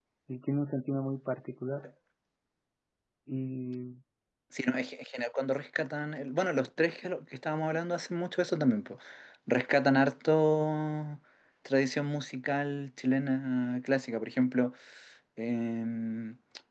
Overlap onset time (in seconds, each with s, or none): none